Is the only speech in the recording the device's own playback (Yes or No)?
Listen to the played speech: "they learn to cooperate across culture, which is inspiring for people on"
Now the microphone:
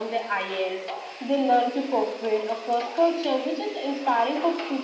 Yes